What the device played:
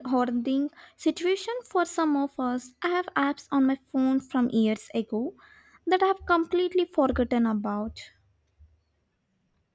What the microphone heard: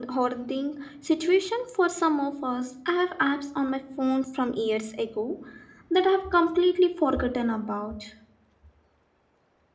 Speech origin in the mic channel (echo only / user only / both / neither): echo only